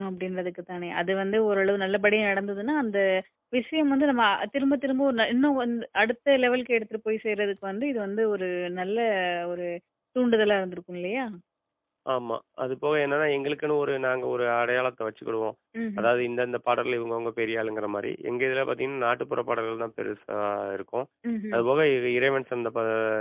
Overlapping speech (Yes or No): No